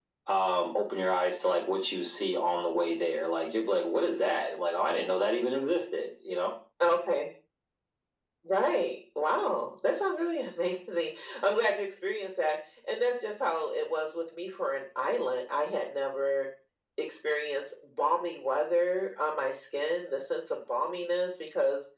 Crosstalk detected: No

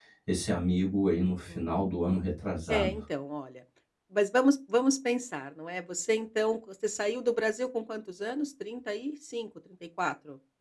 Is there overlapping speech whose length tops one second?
No

